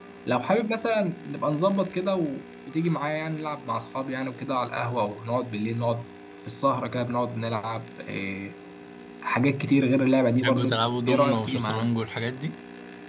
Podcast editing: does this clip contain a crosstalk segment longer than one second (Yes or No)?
Yes